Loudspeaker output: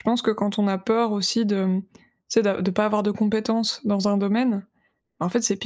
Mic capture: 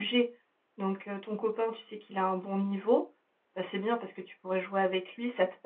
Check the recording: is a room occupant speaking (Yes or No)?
Yes